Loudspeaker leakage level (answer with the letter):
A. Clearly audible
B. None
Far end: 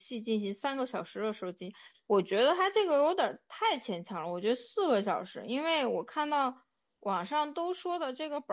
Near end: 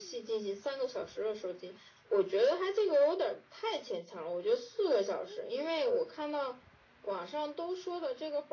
A